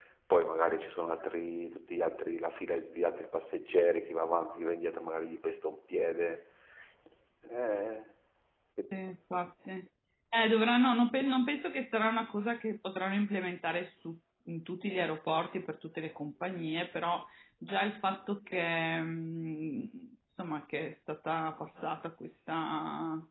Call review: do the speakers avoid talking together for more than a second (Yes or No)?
Yes